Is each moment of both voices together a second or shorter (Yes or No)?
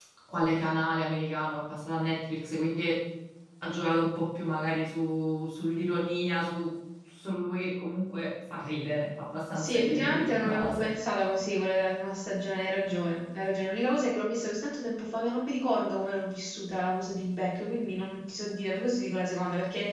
No